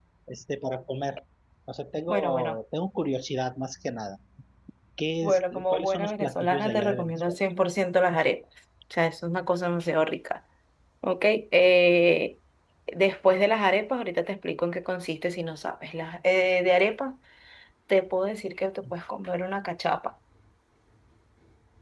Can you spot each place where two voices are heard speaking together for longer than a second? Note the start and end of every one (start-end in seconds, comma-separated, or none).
5.2-7.4